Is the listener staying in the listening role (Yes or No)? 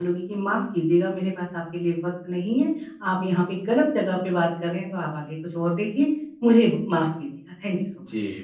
No